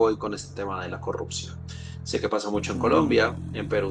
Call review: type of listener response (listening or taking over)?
listening